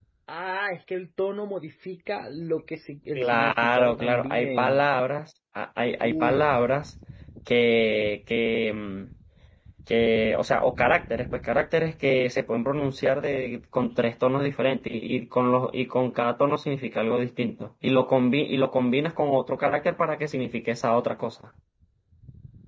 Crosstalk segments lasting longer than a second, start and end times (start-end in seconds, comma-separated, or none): 3.1-4.8